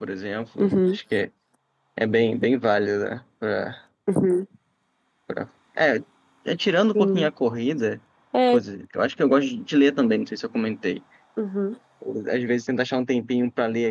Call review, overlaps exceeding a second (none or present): none